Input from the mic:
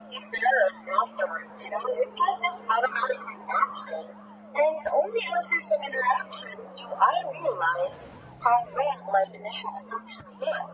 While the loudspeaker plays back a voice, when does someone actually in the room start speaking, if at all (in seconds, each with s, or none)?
none